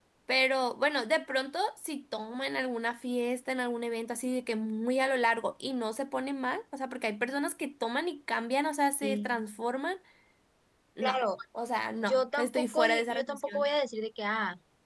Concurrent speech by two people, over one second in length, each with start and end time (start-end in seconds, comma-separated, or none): 12.0-13.7